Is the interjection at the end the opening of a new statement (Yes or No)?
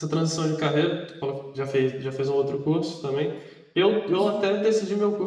No